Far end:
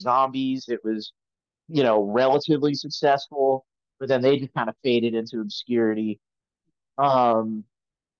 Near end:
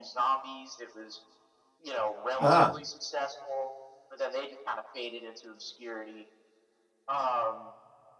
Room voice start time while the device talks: 2.4 s

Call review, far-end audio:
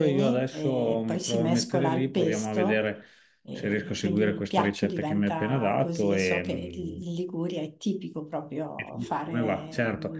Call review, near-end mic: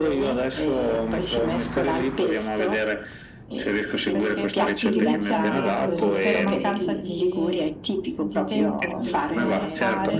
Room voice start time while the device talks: 4.1 s

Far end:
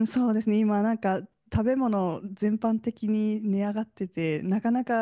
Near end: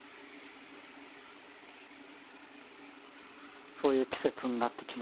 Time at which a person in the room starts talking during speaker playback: 3.8 s

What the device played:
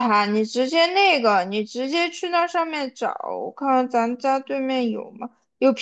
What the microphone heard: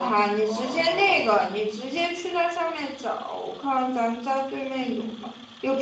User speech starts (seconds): 0.4 s

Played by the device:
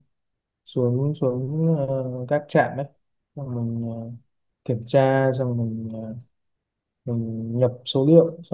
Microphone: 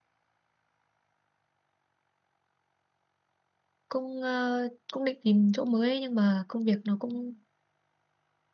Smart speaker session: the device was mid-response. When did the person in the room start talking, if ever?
3.9 s

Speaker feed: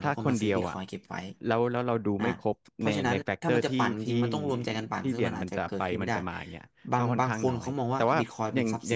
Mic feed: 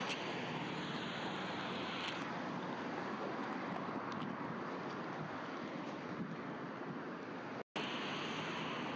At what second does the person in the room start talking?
none

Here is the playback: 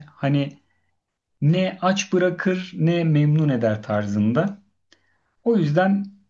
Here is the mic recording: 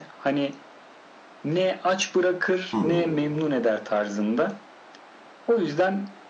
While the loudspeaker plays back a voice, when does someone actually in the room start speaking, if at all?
2.7 s

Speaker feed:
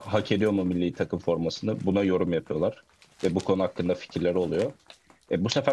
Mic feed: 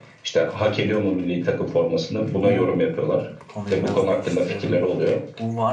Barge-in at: 2.4 s

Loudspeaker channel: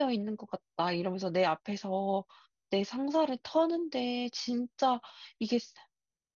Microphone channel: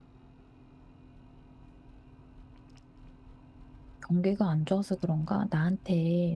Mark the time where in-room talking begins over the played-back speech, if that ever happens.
4.1 s

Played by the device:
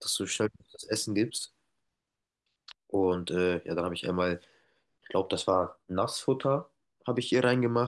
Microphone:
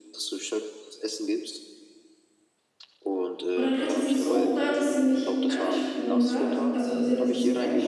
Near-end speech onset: 3.5 s

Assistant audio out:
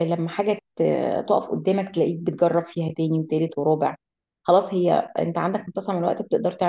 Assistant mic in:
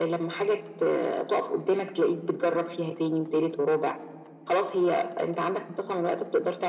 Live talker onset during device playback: none

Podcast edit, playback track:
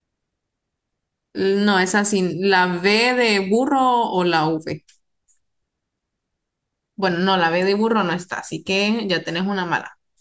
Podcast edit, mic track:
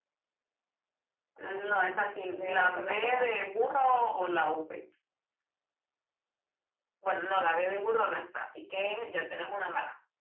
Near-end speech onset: 1.4 s

